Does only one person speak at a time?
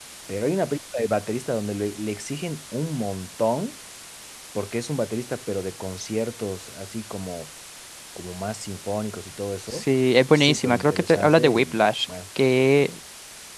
No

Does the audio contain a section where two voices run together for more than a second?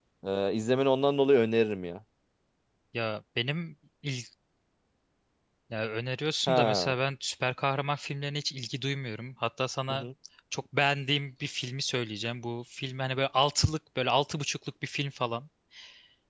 No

